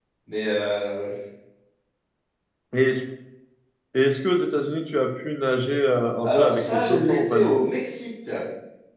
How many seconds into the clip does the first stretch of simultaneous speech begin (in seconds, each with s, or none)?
6.2 s